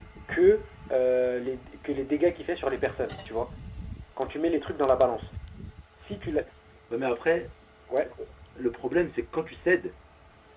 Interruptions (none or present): none